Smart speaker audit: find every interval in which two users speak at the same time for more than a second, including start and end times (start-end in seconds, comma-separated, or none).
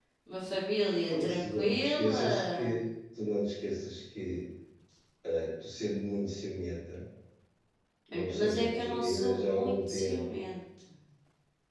1.1-2.8, 8.1-10.4